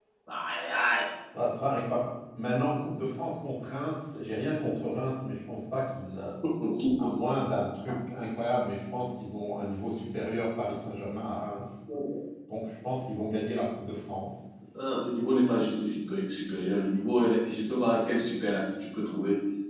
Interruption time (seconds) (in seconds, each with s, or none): none